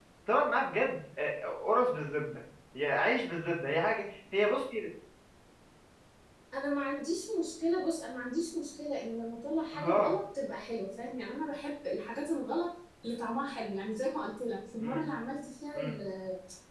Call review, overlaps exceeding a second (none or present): none